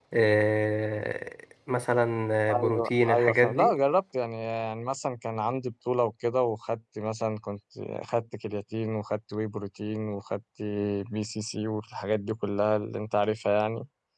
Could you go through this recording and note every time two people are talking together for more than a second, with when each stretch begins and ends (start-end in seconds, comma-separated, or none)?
2.5-3.7